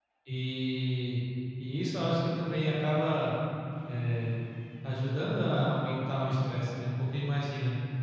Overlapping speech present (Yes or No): No